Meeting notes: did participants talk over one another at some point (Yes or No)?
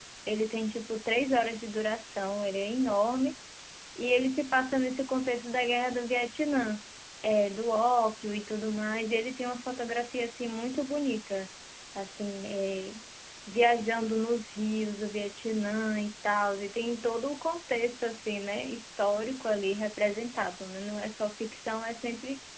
No